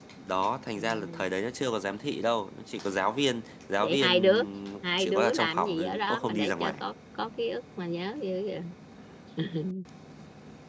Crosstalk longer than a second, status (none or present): present